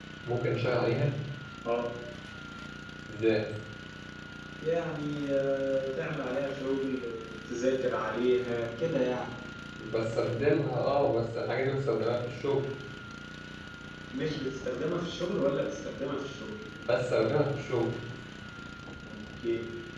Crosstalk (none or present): none